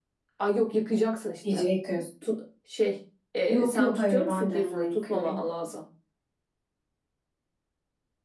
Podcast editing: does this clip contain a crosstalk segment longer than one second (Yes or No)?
Yes